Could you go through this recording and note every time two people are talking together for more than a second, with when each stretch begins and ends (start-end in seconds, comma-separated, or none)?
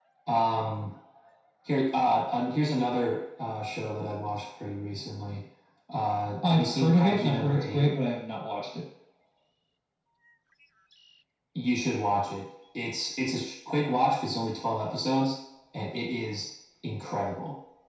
6.5-7.9